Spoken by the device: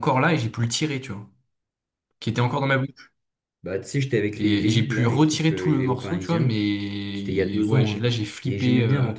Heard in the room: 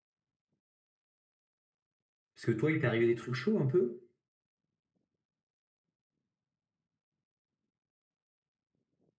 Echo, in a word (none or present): none